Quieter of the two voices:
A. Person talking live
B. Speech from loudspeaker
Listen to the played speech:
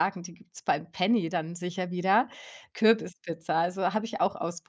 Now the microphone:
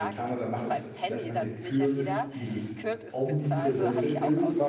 B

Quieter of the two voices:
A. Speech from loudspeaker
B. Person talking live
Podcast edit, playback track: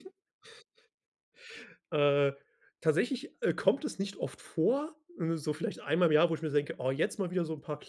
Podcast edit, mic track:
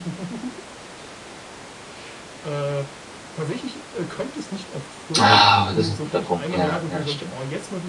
A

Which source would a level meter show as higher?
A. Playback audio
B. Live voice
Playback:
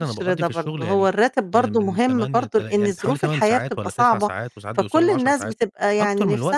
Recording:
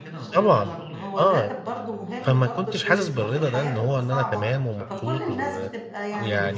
B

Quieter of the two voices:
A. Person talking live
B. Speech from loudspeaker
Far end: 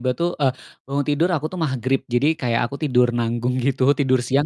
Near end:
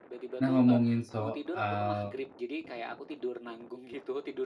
B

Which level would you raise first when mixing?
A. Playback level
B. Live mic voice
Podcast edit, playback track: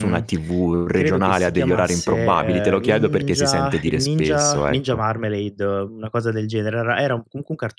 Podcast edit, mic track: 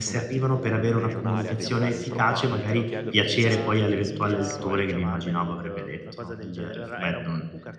A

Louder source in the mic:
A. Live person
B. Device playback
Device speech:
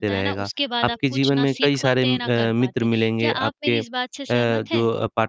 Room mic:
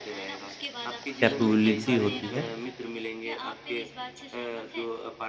A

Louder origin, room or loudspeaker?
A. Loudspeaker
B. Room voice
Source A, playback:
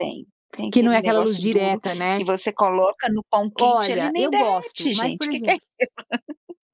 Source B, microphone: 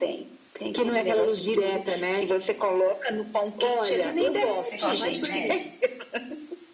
A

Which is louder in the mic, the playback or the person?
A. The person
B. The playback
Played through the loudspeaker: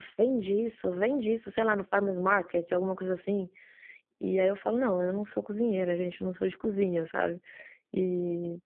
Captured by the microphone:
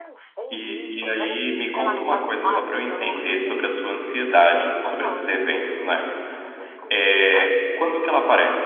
A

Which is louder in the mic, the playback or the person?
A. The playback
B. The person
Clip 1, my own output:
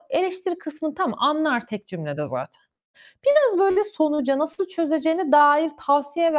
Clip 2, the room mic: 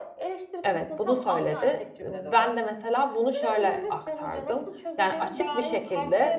B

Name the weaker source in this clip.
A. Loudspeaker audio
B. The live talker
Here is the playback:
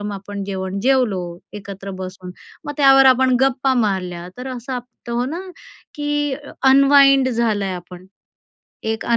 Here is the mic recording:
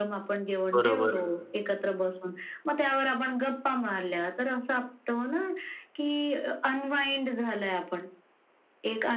A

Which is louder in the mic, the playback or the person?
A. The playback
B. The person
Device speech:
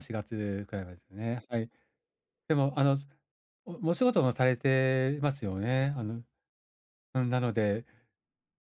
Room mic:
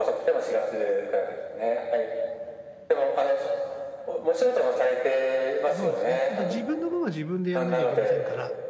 A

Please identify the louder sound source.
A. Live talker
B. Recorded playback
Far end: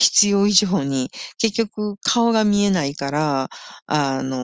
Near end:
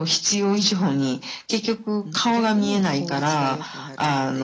B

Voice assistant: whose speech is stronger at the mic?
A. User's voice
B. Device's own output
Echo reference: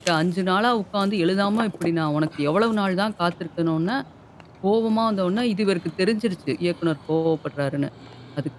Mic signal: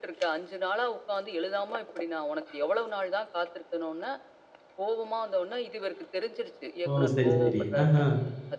A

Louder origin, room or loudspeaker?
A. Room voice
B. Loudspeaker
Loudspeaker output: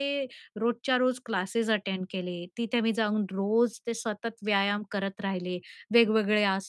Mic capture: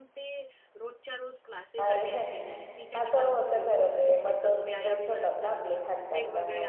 A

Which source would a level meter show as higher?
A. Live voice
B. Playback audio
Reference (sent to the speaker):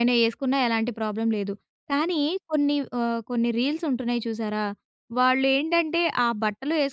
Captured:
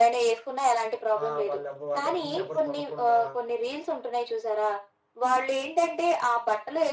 B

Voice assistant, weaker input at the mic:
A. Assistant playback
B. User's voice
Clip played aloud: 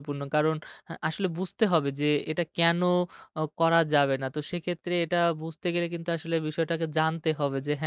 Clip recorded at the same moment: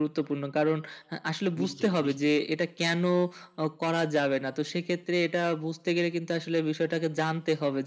B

